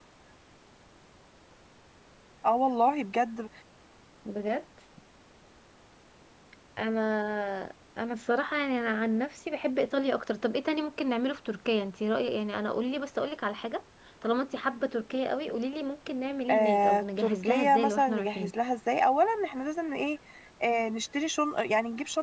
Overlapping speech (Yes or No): Yes